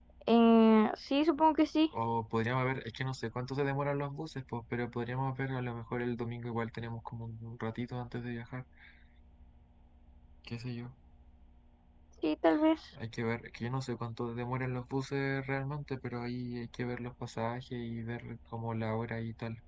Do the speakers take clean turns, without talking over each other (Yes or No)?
Yes